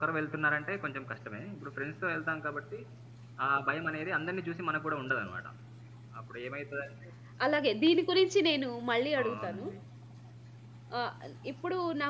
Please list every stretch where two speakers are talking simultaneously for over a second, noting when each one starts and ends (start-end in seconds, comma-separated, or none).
none